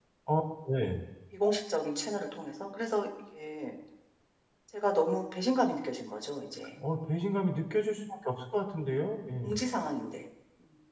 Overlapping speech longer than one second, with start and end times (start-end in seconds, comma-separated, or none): none